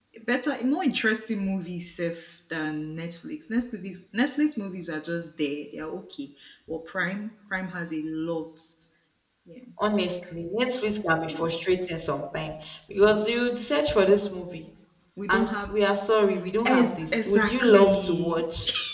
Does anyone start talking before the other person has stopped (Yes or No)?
Yes